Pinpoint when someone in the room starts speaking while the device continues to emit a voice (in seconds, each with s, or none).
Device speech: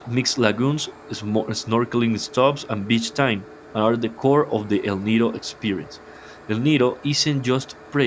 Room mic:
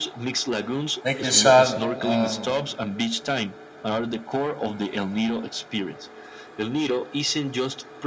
1.0 s